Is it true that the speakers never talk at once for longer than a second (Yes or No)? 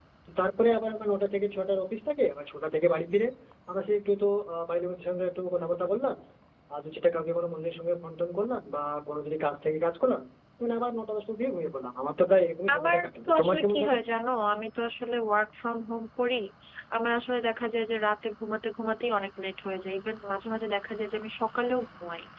No